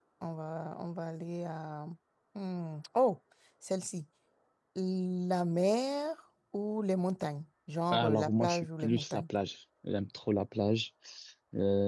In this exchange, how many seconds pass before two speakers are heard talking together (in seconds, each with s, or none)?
7.9 s